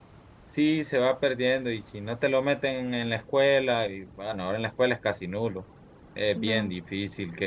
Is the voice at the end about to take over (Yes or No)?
No